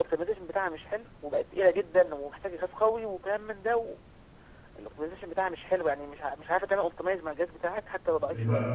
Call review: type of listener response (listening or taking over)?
taking over